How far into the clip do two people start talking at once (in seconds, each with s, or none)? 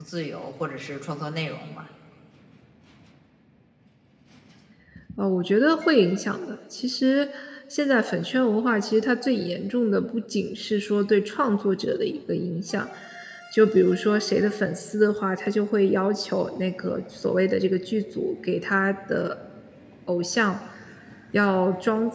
none